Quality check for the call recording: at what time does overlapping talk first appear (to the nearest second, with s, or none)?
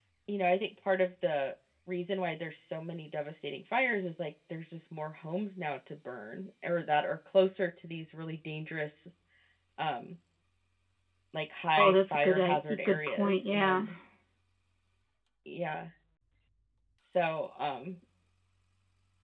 12 s